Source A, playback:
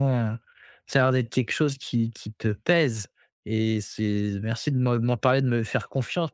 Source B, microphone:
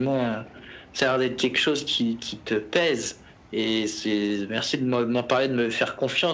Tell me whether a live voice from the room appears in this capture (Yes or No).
No